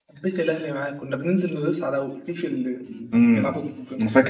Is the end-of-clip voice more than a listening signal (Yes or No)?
Yes